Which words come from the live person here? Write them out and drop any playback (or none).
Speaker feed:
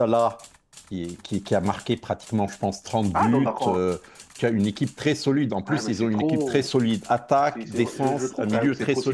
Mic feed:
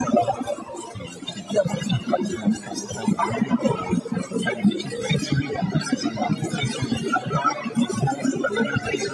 none